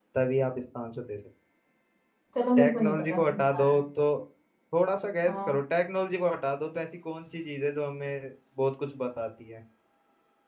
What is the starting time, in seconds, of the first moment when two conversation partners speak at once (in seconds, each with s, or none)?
2.6 s